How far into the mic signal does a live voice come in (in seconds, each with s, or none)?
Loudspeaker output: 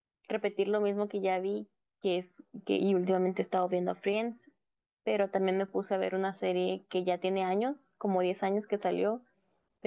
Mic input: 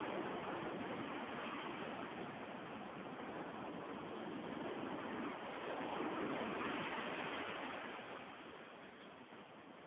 none